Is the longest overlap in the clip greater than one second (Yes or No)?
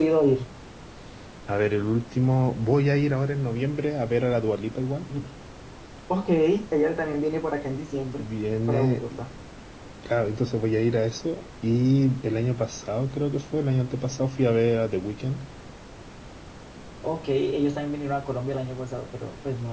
No